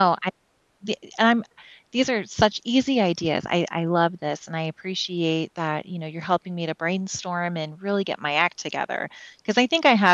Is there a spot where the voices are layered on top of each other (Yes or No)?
No